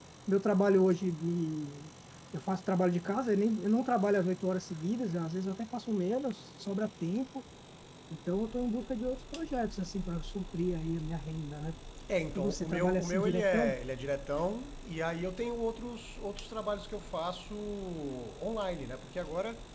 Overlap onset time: 12.3 s

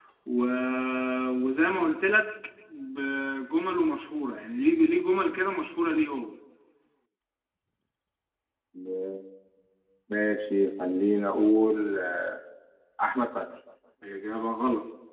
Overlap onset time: none

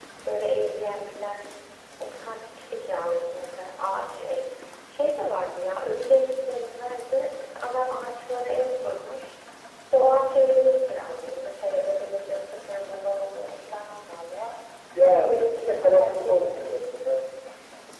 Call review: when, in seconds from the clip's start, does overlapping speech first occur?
15.0 s

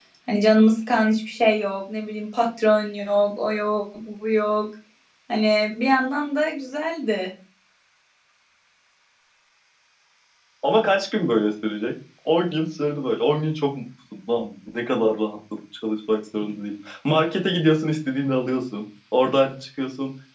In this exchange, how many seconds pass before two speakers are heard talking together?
none

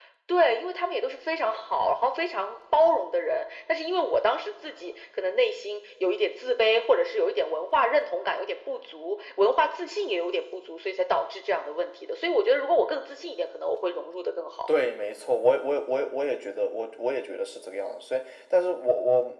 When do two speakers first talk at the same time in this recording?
none

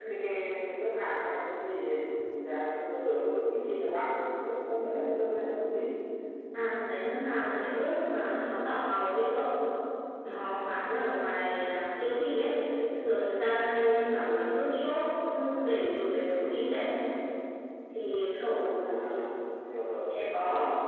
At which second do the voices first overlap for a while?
none

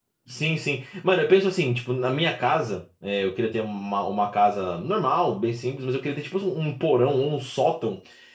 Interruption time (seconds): none

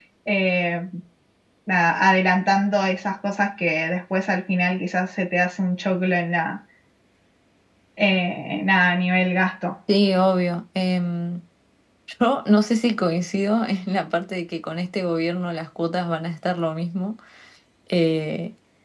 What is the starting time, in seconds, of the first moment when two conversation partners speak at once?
none

